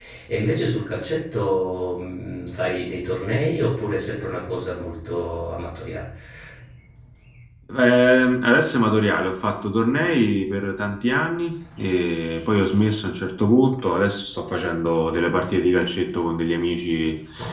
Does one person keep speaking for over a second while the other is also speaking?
No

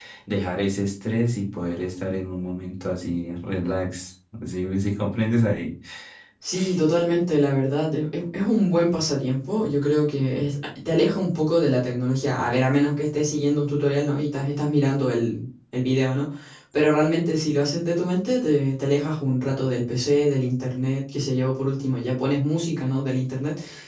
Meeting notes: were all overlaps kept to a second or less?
Yes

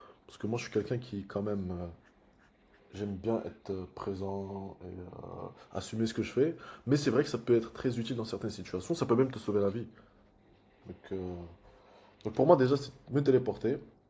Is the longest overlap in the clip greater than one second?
No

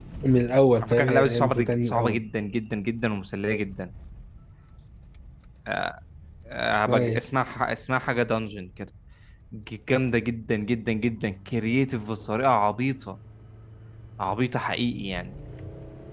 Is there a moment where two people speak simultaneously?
Yes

